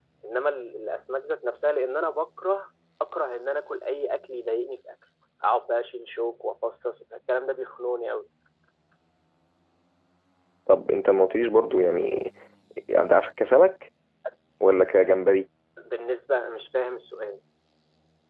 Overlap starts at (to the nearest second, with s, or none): none